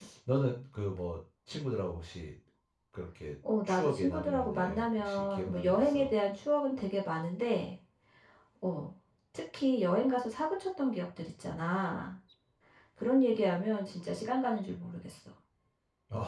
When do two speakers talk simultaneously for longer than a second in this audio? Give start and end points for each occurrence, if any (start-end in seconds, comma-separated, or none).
3.6-6.1